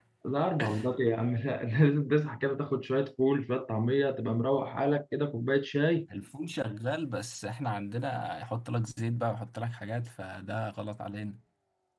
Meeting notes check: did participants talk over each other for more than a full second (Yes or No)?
No